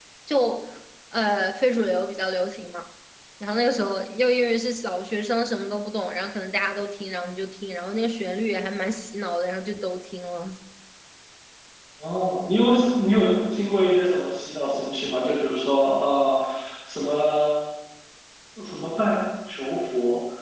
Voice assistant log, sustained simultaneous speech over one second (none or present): none